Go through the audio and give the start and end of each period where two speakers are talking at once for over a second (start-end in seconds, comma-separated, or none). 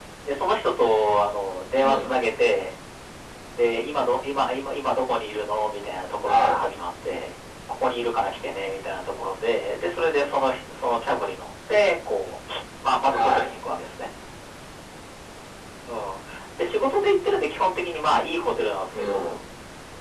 none